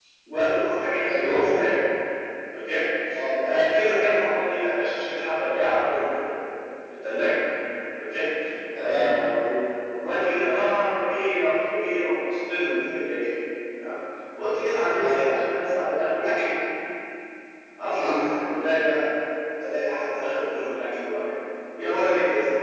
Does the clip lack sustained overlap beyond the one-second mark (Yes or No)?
Yes